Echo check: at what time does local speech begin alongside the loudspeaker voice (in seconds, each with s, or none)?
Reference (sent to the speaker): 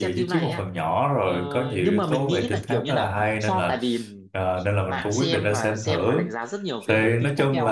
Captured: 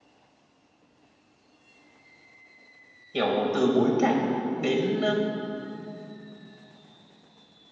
3.1 s